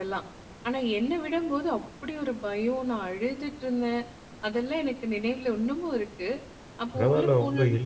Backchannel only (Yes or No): No